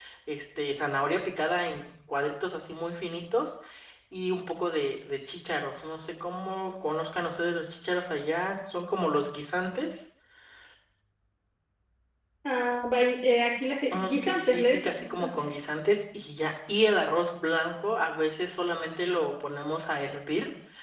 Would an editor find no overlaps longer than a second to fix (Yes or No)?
No